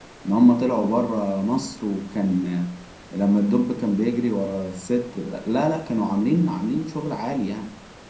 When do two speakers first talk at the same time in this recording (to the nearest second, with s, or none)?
none